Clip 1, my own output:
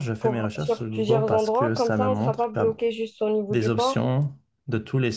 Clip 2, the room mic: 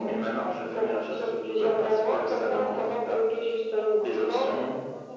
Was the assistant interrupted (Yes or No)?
Yes